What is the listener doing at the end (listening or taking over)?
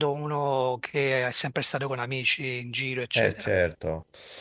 taking over